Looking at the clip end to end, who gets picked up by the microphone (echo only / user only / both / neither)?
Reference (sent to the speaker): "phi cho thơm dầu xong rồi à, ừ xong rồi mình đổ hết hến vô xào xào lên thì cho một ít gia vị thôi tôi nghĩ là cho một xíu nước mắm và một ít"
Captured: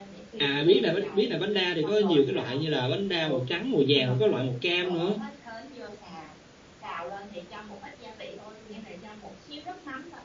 both